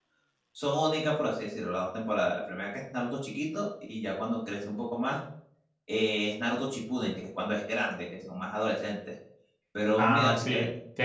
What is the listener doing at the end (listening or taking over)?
taking over